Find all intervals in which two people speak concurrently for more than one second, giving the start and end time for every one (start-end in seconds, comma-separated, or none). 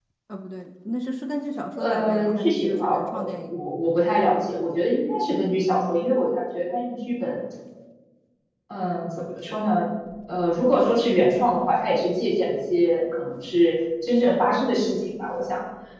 1.8-3.5